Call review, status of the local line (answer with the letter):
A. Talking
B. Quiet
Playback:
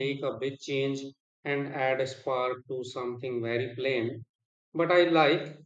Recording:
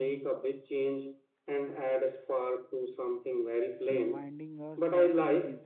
A